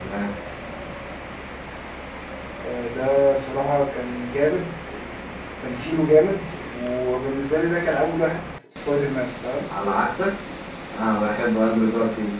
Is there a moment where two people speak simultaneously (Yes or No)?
No